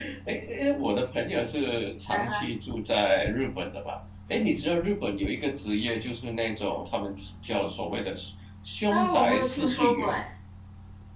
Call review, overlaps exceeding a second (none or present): present